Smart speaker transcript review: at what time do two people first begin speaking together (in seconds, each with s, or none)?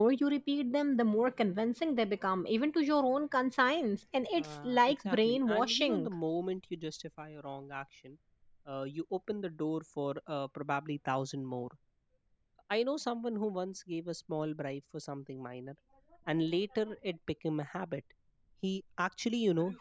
4.4 s